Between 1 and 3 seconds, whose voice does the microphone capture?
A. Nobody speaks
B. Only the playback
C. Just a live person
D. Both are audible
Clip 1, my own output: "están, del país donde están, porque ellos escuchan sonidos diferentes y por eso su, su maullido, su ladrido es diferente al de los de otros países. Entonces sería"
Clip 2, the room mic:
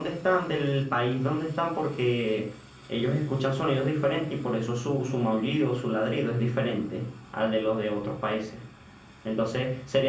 B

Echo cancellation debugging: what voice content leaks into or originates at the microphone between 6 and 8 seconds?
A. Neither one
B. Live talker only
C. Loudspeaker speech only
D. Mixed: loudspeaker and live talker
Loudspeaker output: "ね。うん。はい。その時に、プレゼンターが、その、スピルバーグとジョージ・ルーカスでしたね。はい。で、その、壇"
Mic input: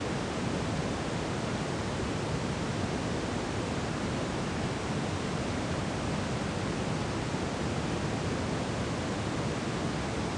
A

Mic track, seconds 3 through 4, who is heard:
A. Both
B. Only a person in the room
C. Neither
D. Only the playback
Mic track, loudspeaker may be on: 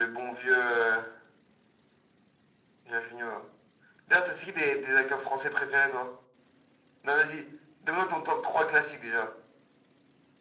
D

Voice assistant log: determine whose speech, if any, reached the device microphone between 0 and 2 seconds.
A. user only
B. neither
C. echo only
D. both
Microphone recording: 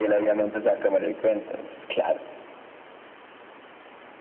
C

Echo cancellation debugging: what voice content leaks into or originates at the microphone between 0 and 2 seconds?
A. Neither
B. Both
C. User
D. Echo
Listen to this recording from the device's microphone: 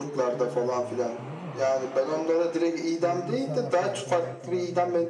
B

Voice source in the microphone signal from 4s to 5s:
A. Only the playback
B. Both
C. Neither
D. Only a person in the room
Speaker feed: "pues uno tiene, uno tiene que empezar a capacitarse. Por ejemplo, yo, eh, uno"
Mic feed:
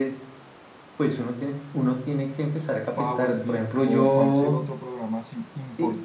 B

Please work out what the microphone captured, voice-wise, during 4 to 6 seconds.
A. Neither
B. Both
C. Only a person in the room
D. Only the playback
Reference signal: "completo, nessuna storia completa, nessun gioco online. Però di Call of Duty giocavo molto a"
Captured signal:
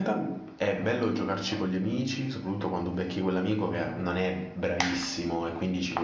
C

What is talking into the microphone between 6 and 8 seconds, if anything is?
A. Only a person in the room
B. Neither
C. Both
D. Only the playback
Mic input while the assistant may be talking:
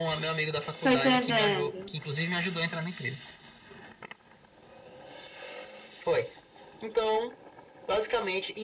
D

